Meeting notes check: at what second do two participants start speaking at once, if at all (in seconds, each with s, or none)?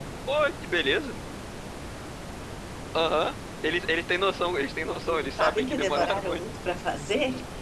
5.1 s